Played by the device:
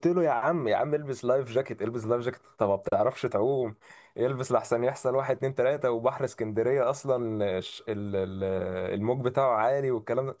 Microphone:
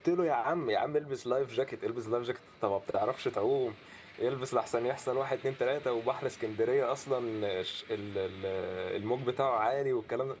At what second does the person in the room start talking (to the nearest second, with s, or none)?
none